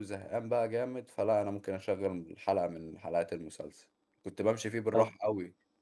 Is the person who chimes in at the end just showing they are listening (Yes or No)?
Yes